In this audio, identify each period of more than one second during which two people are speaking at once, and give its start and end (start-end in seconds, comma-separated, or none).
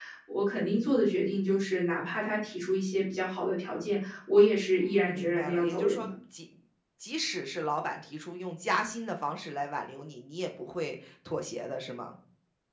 4.8-6.1